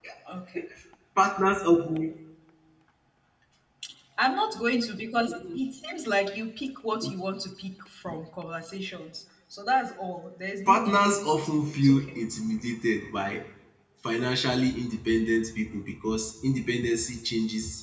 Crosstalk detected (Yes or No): Yes